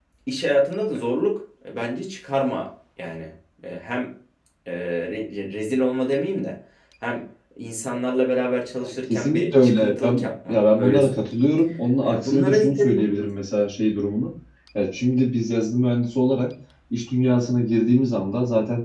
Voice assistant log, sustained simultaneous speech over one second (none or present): present